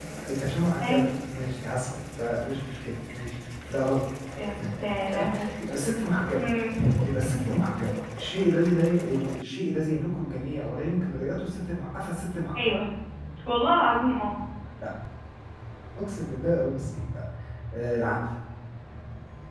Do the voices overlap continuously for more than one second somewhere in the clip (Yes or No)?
No